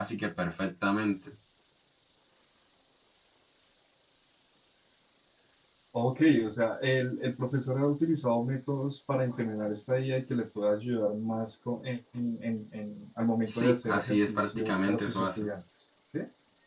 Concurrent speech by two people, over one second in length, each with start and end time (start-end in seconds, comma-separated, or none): 13.4-15.5